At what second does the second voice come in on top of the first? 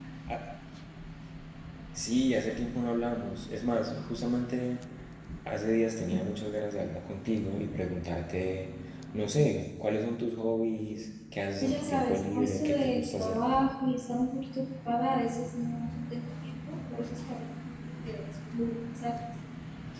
11.6 s

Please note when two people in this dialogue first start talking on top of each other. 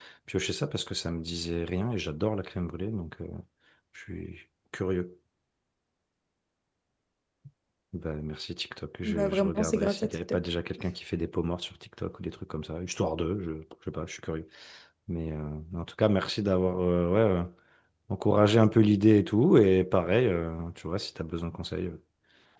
9.0 s

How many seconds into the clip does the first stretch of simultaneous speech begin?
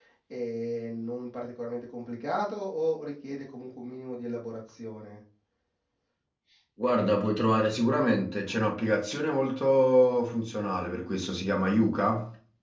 none

